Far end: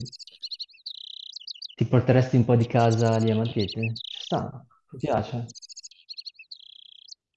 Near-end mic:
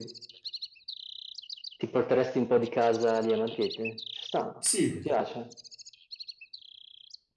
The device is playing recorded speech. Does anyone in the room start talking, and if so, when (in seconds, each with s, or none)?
4.6 s